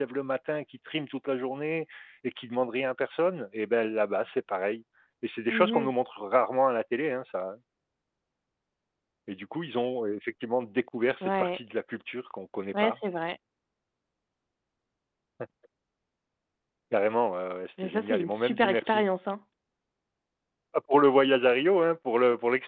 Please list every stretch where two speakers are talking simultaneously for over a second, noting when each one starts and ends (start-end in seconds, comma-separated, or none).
17.8-19.0